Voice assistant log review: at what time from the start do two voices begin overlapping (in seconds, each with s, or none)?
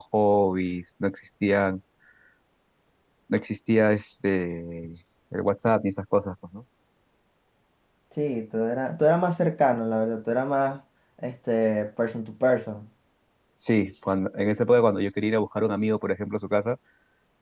none